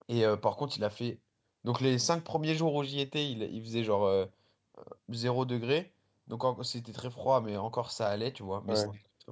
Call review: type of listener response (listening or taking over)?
listening